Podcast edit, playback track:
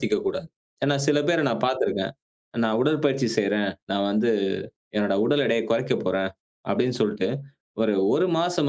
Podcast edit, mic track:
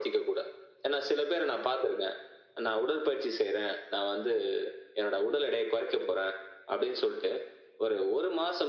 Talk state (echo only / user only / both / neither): echo only